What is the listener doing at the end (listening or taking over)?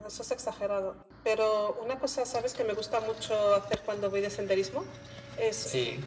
listening